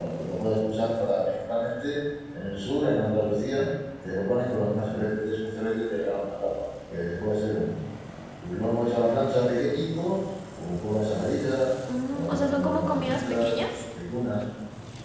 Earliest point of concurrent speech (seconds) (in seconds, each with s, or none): 11.8 s